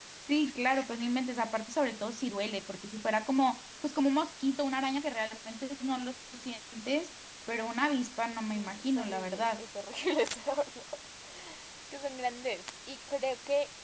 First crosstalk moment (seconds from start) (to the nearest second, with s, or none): 8 s